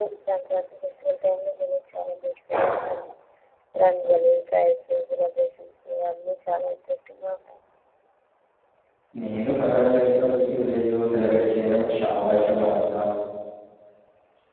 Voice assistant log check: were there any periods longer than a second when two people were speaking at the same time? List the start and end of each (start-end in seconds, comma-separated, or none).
none